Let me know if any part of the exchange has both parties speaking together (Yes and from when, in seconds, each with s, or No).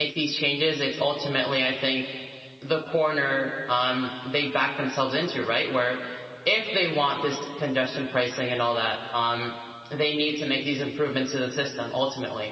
No